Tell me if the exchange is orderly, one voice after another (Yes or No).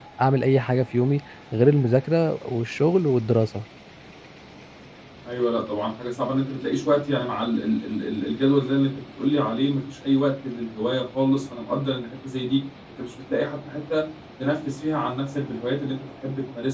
Yes